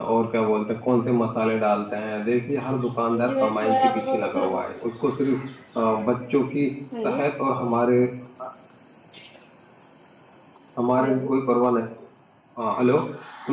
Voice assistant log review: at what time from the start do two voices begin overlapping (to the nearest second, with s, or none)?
3 s